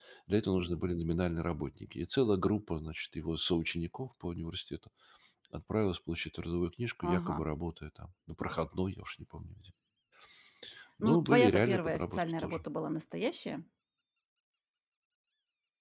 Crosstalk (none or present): present